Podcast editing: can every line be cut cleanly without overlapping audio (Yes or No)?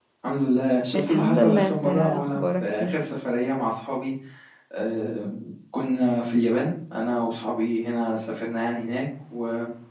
No